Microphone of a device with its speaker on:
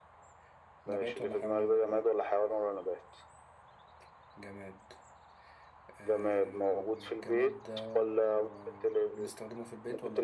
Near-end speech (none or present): present